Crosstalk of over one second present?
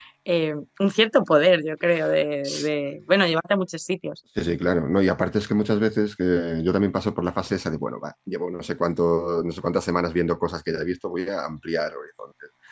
No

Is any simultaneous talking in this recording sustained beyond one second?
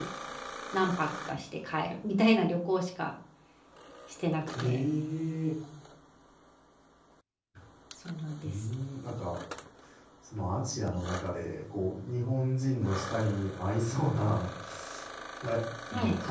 No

